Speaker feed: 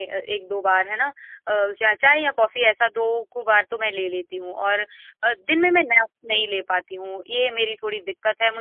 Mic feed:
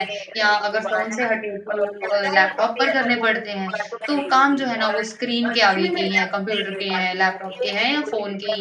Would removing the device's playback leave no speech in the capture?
No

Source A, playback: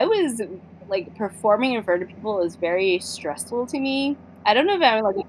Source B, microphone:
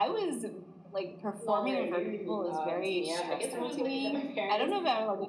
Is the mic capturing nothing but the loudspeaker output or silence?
No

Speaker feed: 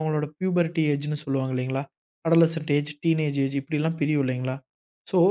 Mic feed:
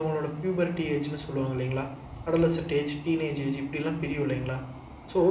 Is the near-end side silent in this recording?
Yes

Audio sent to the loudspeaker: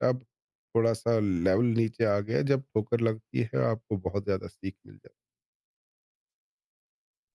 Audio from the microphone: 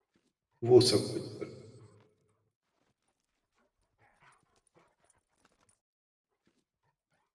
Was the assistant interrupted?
Yes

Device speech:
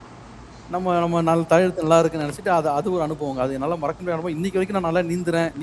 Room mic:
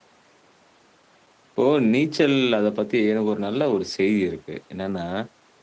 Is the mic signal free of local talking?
No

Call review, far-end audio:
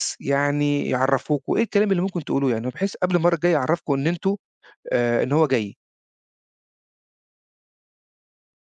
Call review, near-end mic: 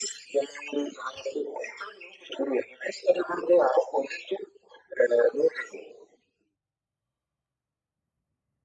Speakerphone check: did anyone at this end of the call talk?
No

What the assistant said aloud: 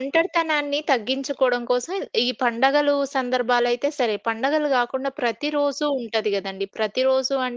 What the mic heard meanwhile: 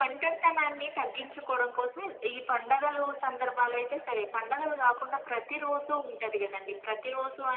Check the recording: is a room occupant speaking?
No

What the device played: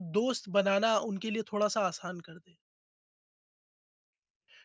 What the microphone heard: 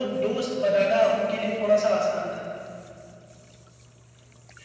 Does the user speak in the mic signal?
No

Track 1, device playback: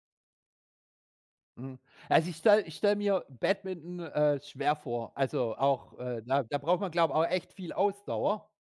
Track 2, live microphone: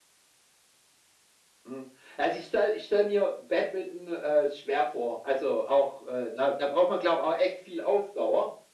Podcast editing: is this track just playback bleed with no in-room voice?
Yes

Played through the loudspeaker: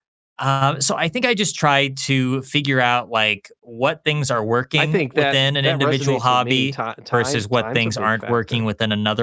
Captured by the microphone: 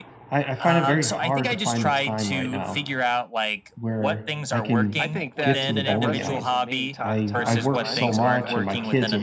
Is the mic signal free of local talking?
No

